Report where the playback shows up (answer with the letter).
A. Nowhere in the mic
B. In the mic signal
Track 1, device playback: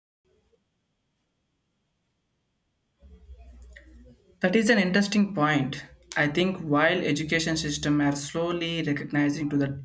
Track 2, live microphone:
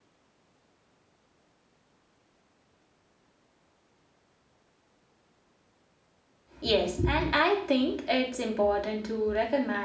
A